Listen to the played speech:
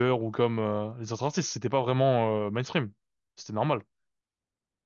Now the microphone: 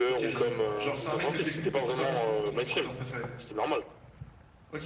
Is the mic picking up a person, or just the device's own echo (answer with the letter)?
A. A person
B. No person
A